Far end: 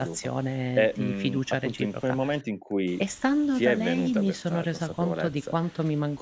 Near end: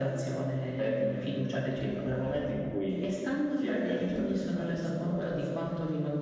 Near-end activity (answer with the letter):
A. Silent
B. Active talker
A